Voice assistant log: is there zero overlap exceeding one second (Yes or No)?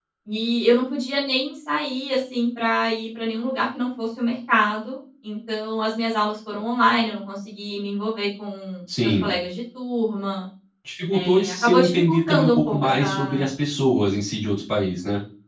No